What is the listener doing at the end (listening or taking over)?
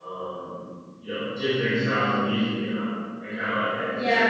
taking over